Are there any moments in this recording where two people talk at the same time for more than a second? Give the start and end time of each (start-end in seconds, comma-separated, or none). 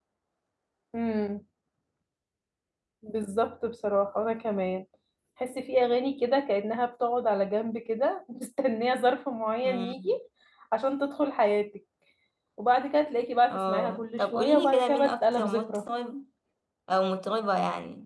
13.5-15.8